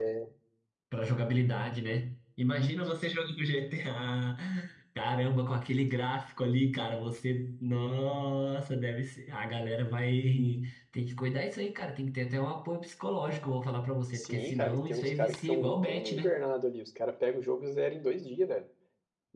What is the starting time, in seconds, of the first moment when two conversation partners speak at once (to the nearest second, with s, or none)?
14 s